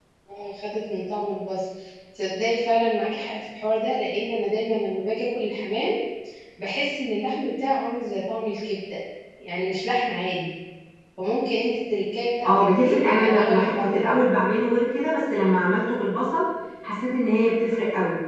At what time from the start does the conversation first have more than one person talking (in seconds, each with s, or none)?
12.4 s